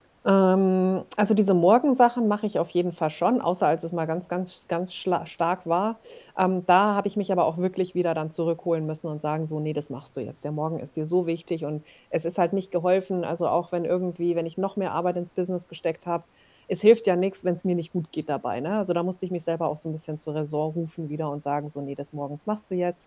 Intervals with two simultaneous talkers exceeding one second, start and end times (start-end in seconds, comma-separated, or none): none